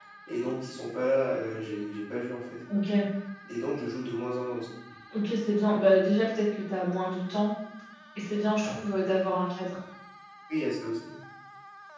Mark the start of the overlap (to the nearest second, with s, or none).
none